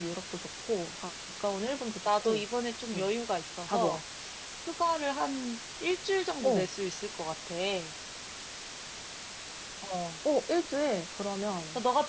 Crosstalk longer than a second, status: none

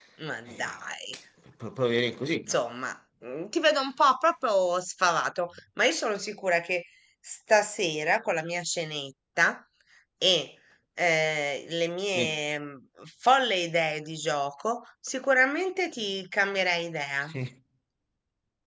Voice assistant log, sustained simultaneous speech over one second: none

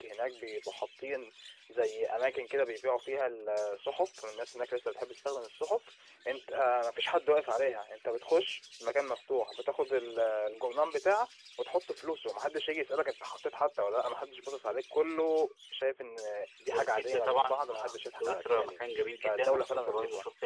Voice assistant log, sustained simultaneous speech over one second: present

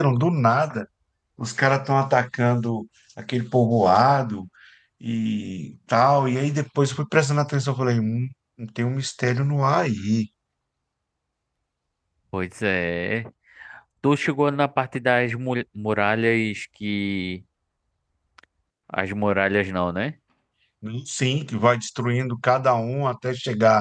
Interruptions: none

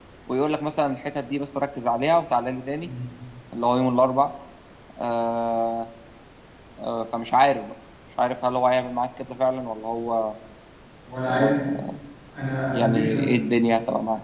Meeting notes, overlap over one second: none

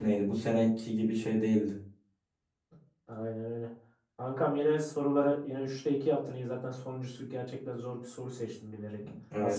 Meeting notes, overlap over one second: none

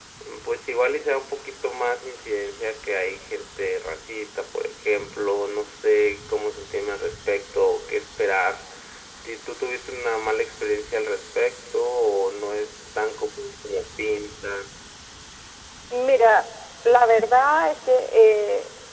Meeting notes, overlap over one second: none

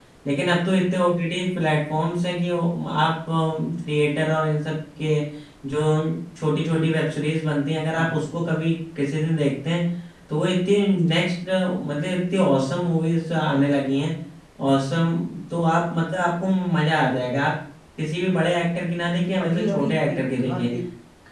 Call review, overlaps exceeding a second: present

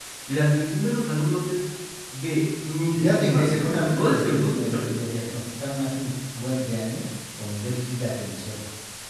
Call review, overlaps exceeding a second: present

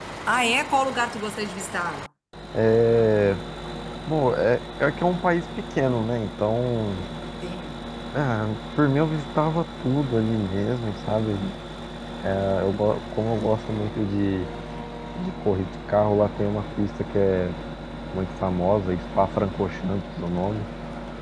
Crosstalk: none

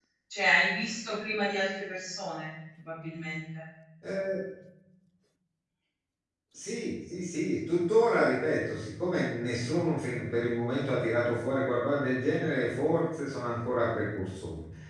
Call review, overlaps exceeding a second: none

